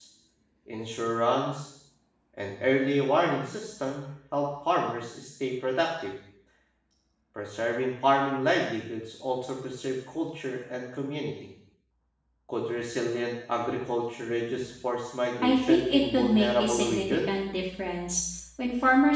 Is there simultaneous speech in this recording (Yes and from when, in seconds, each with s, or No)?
Yes, from 15.4 s